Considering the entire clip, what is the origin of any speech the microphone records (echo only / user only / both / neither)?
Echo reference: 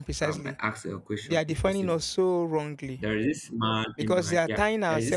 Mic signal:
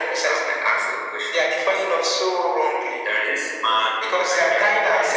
echo only